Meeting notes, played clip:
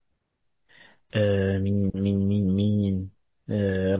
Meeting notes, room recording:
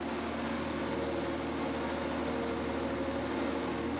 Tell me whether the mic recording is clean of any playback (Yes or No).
Yes